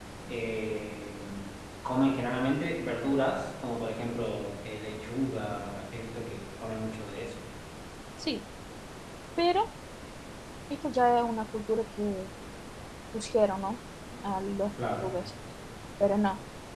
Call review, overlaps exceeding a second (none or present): none